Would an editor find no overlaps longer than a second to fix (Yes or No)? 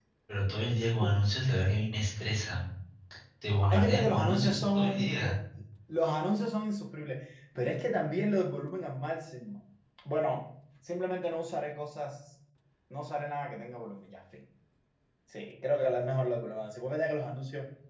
No